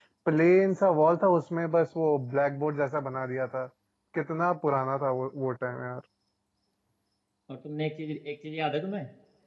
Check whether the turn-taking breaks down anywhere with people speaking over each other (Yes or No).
No